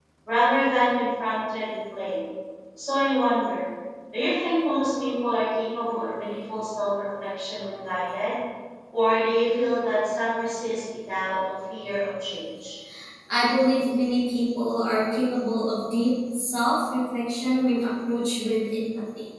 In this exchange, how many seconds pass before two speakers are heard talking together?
none

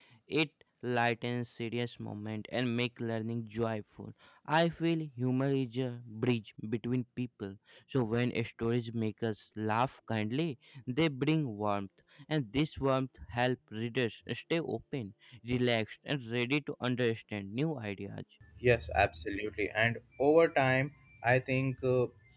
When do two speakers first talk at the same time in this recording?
none

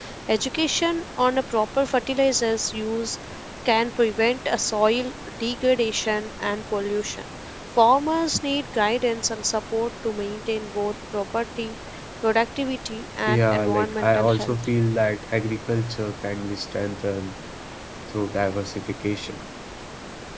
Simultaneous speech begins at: 13.3 s

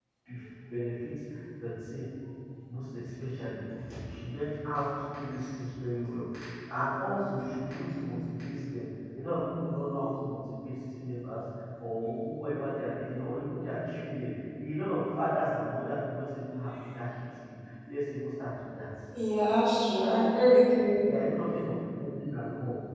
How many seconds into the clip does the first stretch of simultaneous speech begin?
none

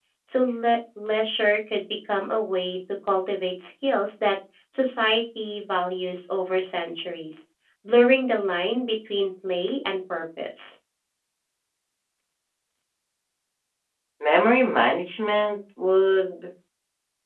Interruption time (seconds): none

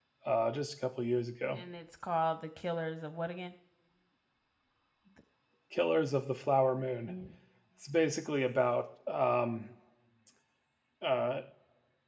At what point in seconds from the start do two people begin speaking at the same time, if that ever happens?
none

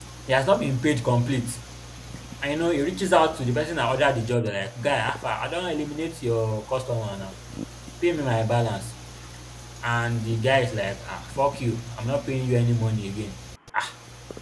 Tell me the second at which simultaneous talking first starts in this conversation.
none

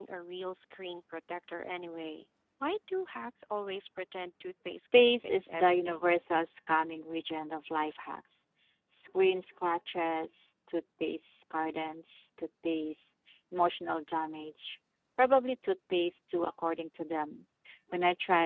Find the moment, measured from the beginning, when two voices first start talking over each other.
4.9 s

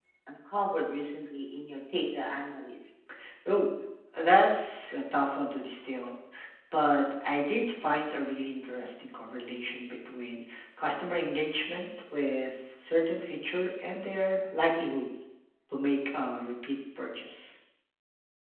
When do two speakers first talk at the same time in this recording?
none

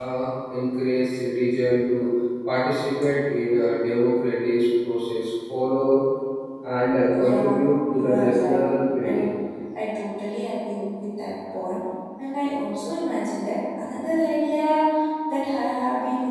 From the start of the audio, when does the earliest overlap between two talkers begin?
7.2 s

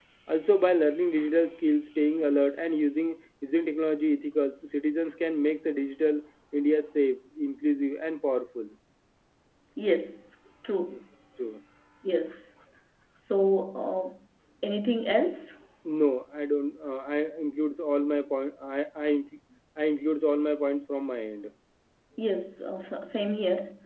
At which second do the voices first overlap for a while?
none

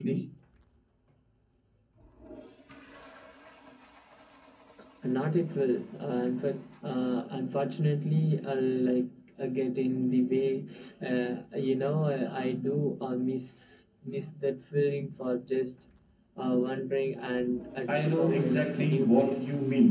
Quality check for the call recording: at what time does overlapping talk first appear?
17.9 s

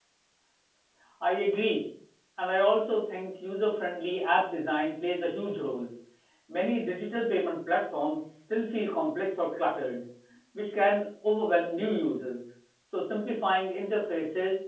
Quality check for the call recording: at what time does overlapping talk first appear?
none

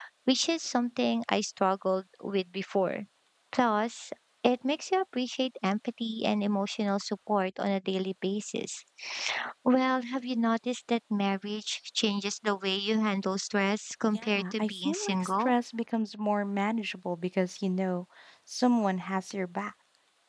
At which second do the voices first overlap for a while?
14.2 s

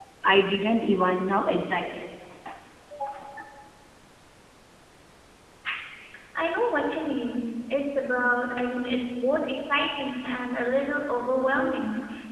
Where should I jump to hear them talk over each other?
none

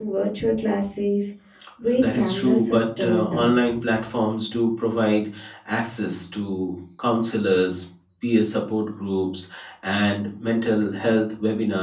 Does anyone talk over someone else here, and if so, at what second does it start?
1.9 s

